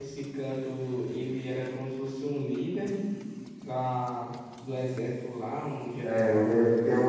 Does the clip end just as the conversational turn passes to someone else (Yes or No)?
Yes